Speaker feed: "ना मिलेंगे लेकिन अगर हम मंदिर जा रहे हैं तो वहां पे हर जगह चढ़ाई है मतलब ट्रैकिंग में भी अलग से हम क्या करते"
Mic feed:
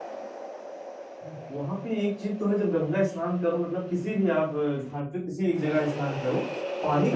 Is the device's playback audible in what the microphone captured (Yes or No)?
No